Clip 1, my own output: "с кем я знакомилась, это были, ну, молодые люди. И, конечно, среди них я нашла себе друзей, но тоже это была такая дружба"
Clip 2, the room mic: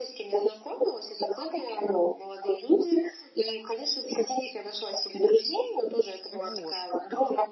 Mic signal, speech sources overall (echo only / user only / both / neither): both